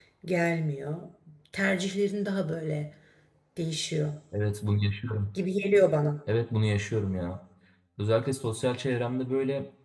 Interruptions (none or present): none